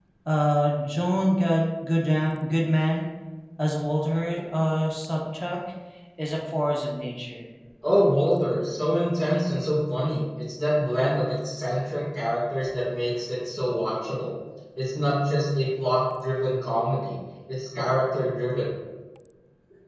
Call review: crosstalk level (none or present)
none